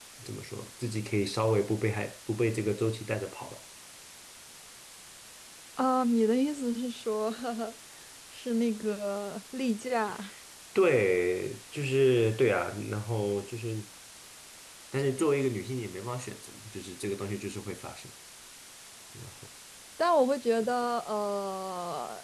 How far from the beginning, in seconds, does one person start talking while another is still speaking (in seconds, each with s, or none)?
none